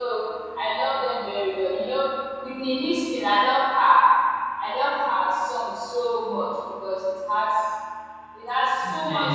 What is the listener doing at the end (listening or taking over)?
taking over